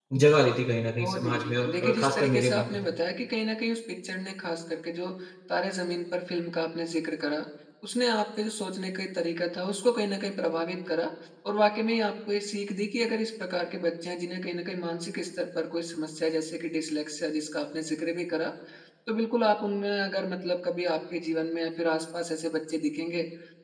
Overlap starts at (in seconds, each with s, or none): 1.0 s